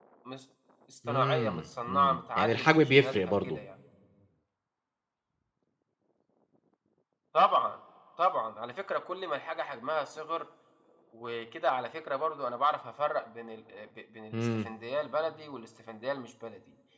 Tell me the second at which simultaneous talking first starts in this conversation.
1.1 s

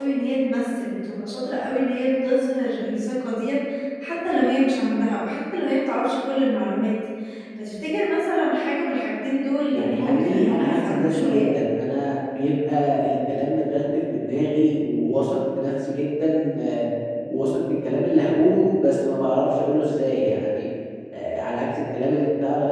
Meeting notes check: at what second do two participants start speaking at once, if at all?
9.7 s

